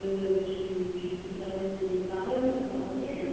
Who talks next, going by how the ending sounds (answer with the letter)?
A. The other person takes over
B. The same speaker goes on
A